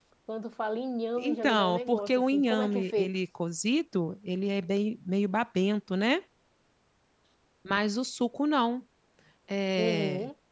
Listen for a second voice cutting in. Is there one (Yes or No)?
Yes